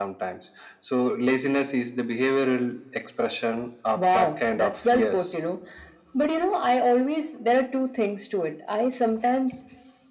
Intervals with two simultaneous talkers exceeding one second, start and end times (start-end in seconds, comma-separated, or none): 4.0-5.2